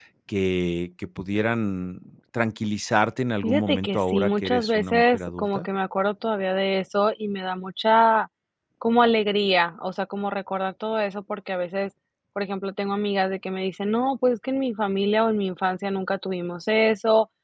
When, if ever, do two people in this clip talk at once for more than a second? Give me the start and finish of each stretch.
3.4-5.7

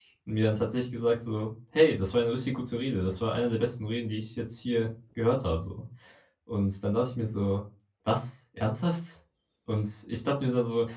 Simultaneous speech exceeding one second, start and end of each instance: none

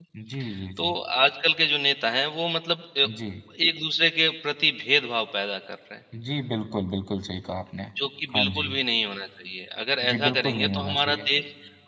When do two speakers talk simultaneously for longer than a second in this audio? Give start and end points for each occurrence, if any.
10.1-11.3

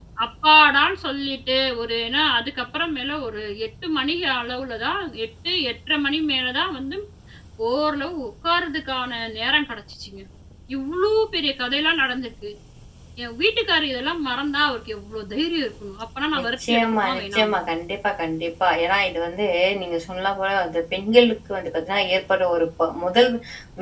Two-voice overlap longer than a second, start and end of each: 16.4-17.6

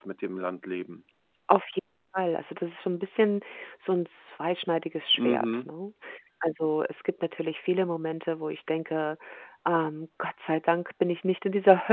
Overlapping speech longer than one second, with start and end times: none

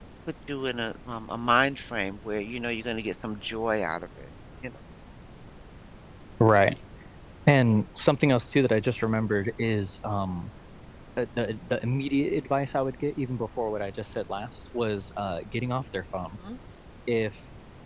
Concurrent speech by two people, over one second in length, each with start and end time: none

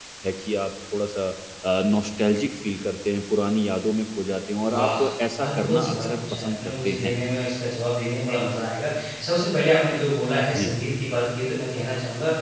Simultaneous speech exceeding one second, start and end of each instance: 5.4-7.2

